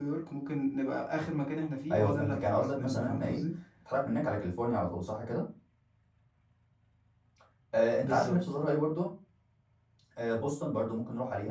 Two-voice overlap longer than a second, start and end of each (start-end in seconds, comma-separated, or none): 1.9-3.4